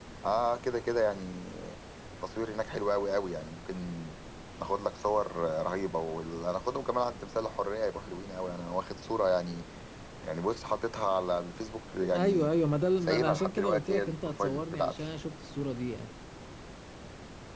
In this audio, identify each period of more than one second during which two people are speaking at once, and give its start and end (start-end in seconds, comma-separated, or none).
13.0-15.1